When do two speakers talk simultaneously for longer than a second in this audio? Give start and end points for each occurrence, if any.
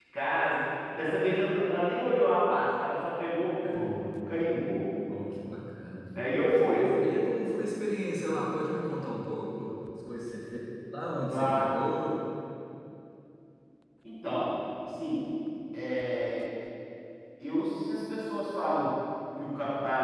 none

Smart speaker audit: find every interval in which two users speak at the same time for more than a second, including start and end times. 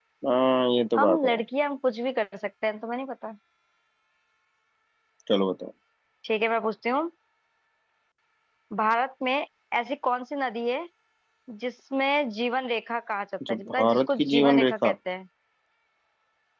13.5-15.0

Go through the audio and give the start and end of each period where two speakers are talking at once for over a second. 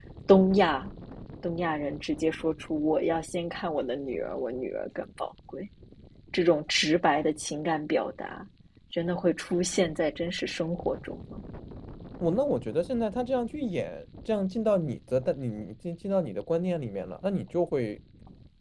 none

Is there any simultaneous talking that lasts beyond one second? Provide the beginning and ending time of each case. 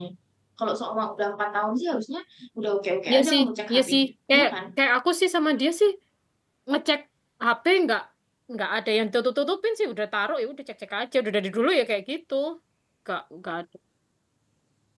3.1-4.5

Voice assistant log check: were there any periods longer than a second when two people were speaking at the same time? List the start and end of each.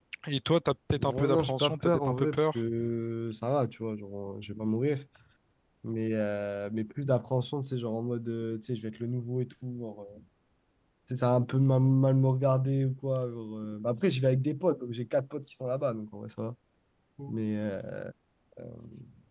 0.9-2.6

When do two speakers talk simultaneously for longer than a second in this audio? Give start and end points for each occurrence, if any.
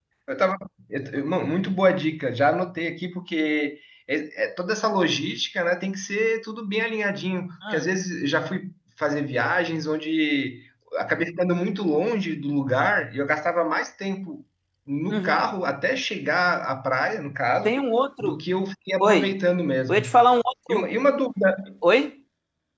none

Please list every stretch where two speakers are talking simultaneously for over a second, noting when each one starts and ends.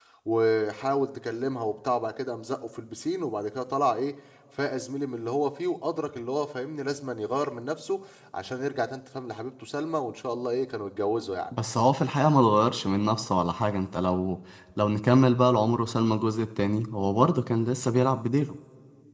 none

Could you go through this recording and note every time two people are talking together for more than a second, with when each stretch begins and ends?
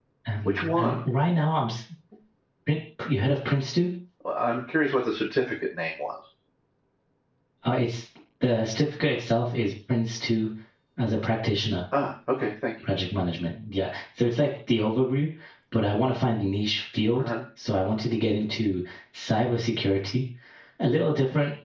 none

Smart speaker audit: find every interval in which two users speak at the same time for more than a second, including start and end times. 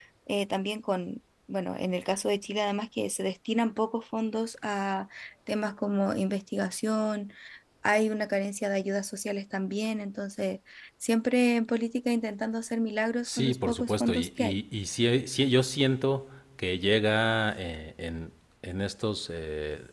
13.2-14.5

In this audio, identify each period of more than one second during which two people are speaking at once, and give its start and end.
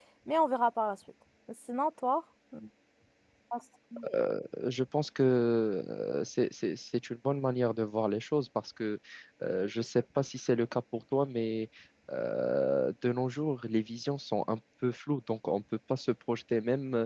none

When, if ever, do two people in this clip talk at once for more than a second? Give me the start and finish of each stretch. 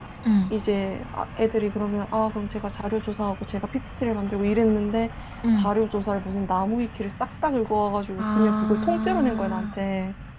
8.2-9.7

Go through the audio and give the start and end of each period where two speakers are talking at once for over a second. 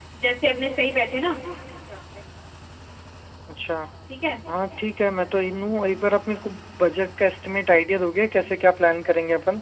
none

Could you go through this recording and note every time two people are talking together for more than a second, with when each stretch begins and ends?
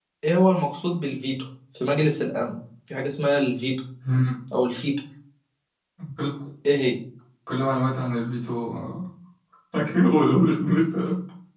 none

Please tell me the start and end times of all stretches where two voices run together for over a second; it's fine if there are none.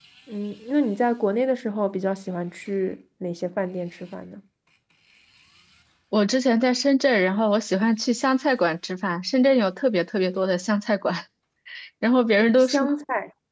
none

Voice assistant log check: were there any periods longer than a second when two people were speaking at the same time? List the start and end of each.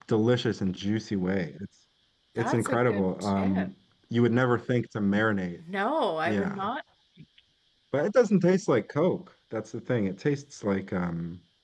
2.4-3.7

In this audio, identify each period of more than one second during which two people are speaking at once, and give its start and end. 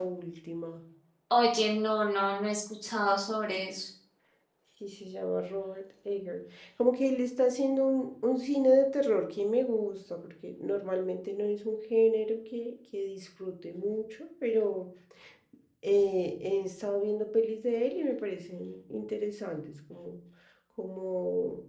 none

